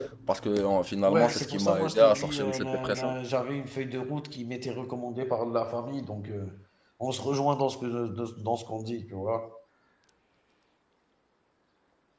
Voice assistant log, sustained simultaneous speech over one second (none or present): present